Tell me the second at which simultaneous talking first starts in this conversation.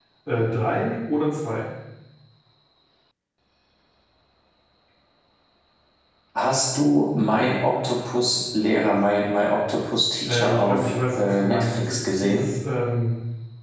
10 s

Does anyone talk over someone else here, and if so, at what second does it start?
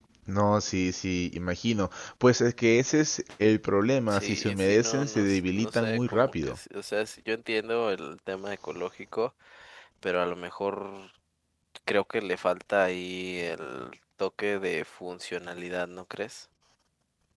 4 s

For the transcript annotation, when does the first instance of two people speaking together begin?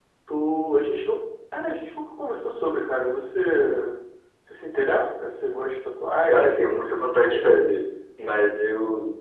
6 s

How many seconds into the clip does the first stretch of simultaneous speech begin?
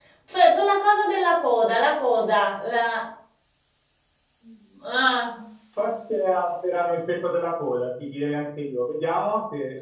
none

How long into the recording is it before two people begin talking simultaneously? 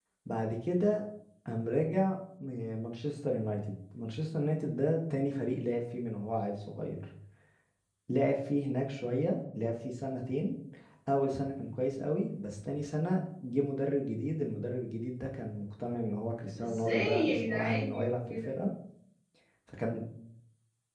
17 s

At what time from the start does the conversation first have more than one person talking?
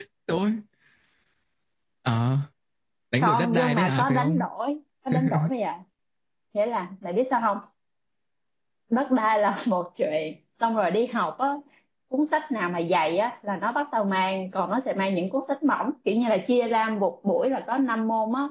3 s

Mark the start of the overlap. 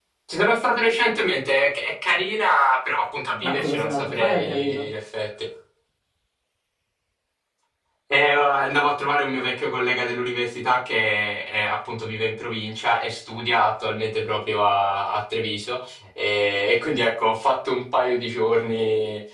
3 s

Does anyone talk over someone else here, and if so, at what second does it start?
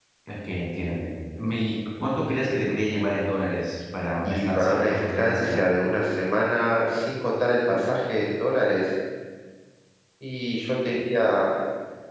4 s

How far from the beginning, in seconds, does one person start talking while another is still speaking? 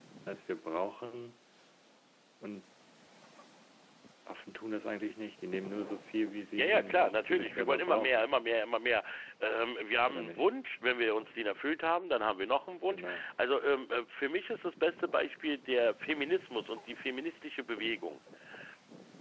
7 s

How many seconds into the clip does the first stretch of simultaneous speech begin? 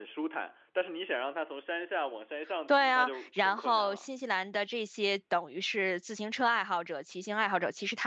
3 s

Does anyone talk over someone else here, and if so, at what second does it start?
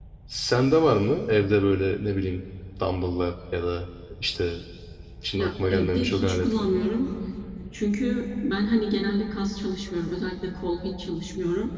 5 s

